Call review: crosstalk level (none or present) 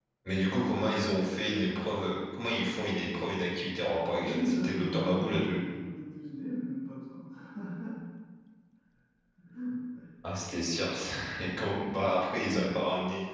present